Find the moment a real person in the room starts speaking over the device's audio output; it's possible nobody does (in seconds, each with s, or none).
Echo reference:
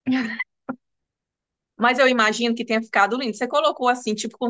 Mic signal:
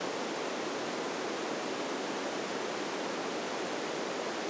none